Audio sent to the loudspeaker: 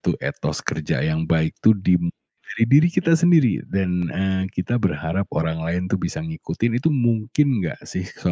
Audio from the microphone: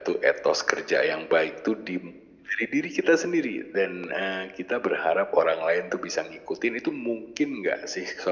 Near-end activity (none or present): none